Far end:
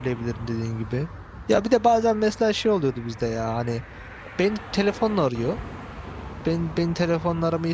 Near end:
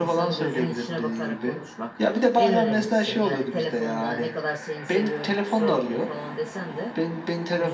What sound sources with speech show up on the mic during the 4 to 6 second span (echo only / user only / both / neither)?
both